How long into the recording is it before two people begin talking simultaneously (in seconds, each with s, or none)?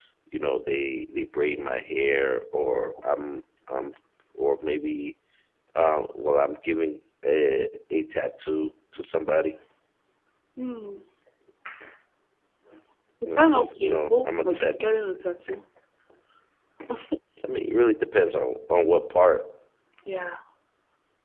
13.3 s